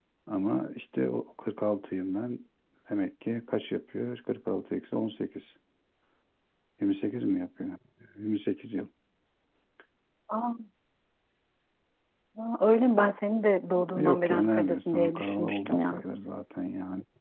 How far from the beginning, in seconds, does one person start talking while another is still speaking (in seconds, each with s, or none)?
14.0 s